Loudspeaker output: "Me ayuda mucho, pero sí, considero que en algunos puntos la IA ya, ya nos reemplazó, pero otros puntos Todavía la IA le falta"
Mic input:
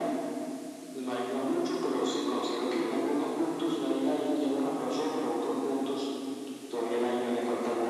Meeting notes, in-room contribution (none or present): none